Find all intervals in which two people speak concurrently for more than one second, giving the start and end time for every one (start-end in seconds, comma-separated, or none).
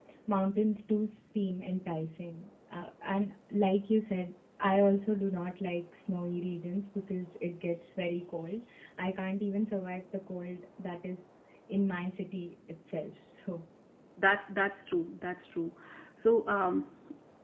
none